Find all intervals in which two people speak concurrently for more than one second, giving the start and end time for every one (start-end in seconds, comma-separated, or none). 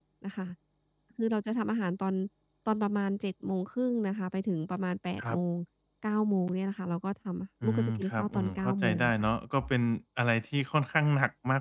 7.6-9.1